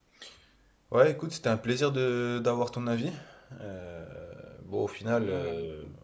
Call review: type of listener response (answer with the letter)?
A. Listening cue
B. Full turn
A